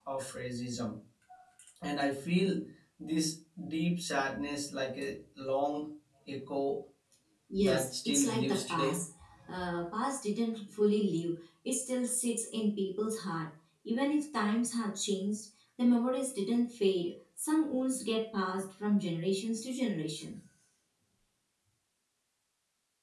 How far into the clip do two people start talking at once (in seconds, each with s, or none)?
7.6 s